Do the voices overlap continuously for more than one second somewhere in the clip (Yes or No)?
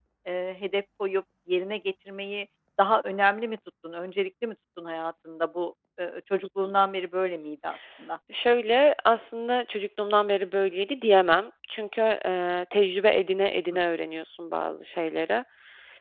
No